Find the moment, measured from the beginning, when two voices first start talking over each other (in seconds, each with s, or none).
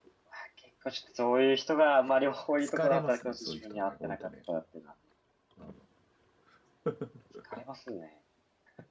2.6 s